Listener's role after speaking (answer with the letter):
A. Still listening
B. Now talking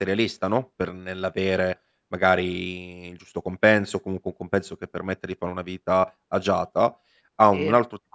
A